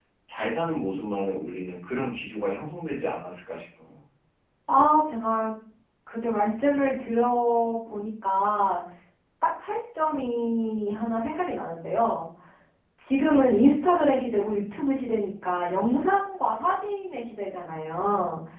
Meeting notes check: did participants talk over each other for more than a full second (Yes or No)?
No